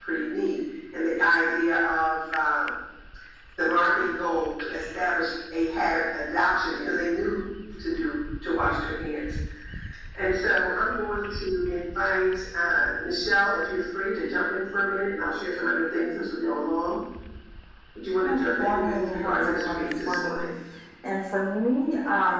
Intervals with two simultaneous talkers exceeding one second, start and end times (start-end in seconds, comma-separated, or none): 18.2-20.4